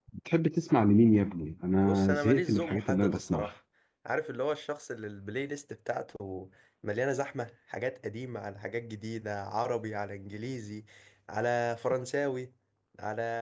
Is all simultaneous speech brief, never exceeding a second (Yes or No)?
No